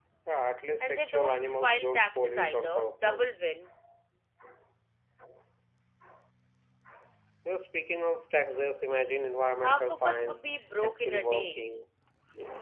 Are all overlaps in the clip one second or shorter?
No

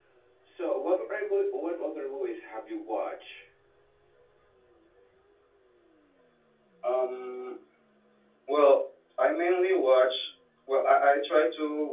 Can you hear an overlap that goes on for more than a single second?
No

